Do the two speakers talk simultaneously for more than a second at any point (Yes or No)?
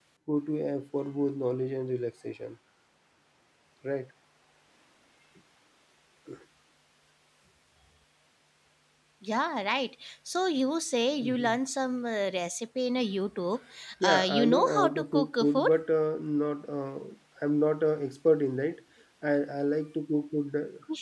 Yes